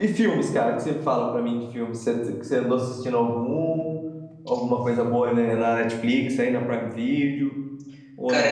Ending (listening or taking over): taking over